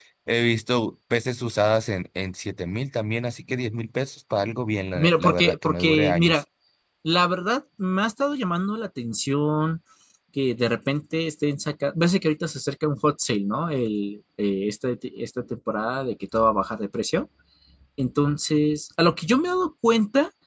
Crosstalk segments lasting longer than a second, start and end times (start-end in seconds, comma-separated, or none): 5.0-6.4